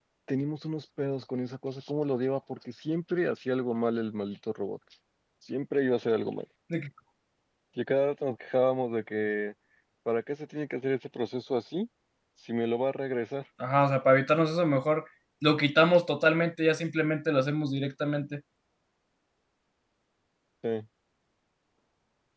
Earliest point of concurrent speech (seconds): none

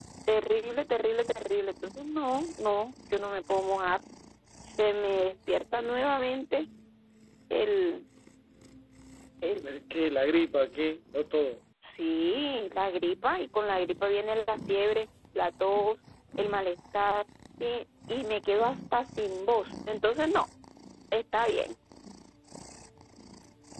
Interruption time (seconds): none

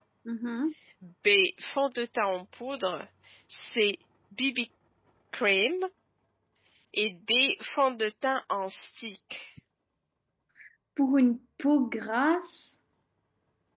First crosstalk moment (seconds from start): none

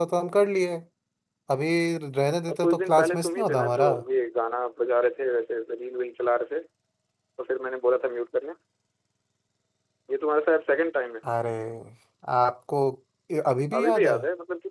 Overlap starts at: 3 s

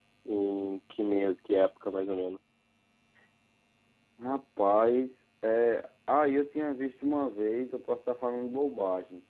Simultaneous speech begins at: none

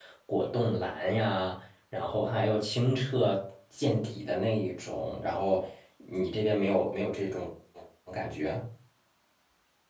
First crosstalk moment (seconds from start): none

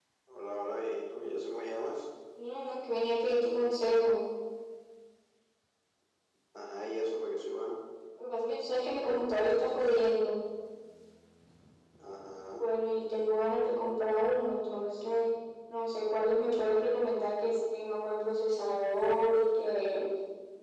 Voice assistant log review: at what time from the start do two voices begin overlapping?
none

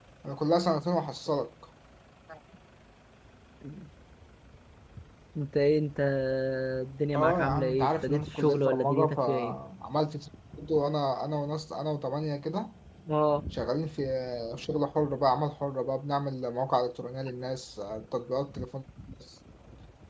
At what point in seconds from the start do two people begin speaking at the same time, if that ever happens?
7 s

